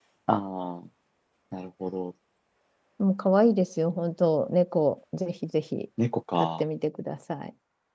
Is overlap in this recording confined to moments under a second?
Yes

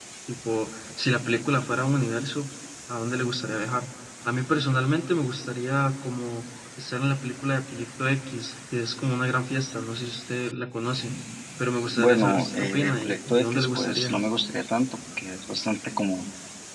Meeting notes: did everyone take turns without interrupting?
No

